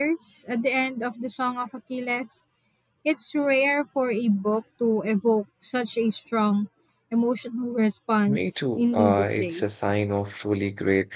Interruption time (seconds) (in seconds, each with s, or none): 8.3 s